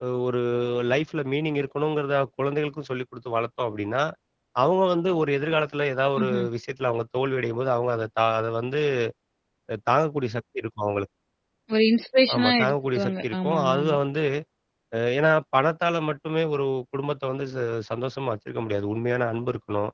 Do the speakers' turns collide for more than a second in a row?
Yes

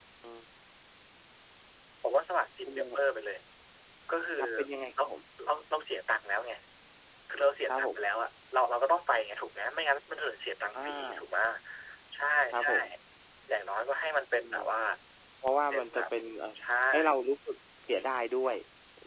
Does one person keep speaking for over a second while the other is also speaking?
No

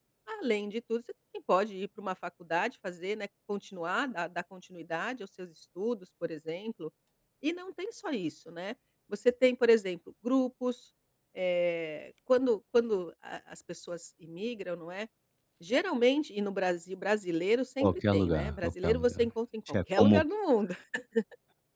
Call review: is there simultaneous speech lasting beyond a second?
Yes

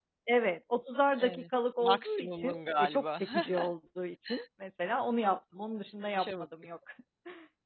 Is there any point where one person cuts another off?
Yes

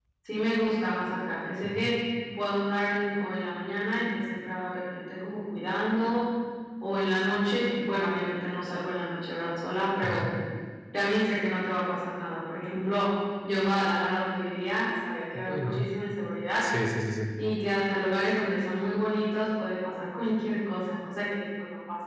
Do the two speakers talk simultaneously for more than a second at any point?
No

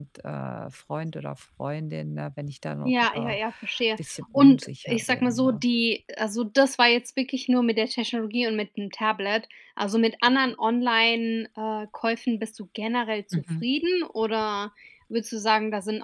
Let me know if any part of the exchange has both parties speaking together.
Yes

